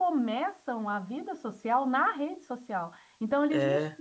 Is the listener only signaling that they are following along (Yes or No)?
Yes